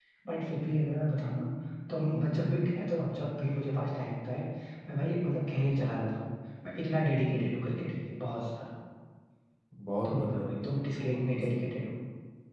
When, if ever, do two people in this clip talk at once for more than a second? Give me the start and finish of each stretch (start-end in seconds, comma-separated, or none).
10.1-11.8